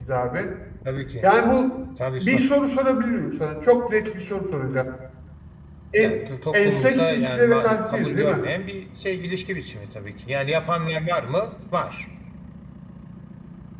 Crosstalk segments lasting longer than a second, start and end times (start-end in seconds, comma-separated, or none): 6.5-8.4